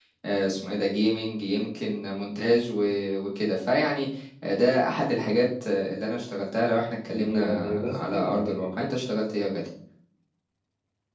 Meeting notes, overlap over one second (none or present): present